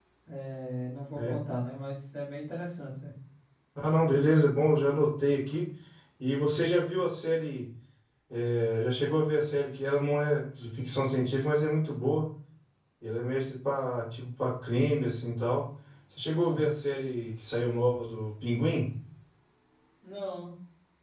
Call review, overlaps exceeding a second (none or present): none